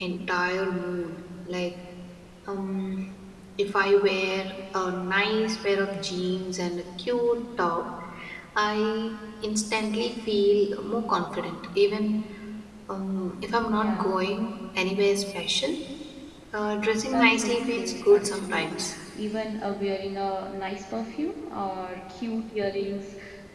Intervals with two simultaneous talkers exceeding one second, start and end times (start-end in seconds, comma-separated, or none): 17.1-18.7